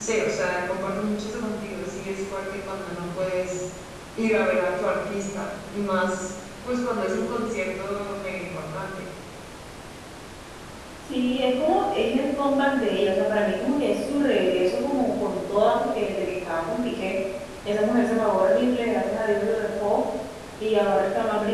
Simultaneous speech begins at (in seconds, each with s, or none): none